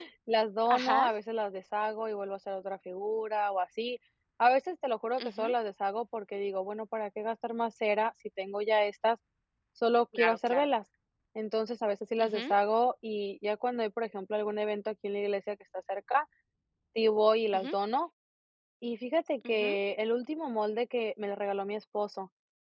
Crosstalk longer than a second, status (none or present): none